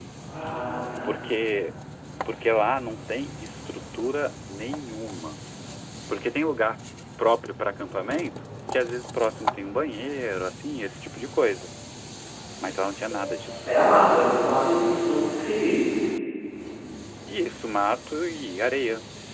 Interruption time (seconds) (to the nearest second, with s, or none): none